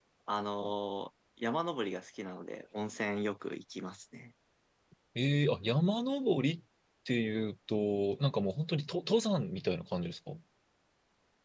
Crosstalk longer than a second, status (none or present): none